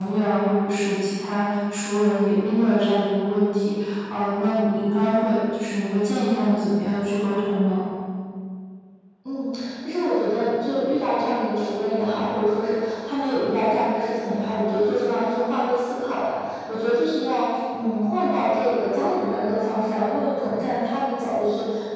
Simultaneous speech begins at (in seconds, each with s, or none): none